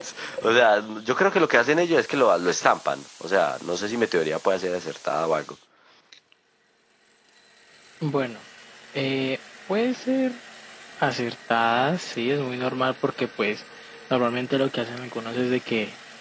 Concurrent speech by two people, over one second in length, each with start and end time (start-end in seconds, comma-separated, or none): none